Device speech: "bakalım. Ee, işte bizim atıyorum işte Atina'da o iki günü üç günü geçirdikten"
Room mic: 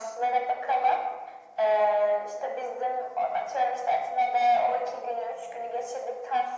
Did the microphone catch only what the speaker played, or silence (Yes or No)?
Yes